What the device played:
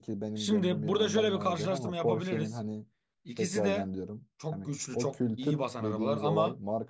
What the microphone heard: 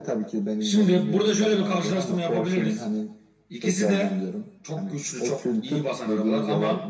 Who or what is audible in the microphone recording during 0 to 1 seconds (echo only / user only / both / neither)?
echo only